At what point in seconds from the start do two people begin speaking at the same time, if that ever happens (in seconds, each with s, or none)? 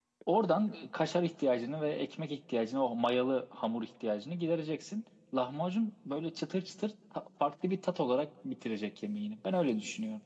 none